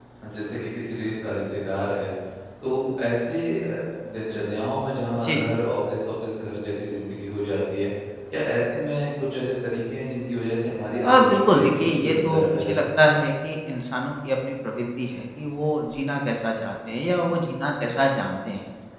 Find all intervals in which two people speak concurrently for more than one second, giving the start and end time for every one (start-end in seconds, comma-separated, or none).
11.0-13.1